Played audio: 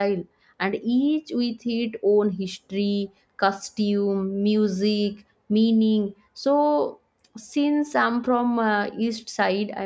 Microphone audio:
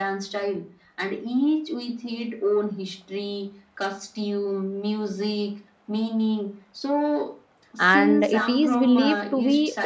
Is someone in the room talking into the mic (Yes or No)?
Yes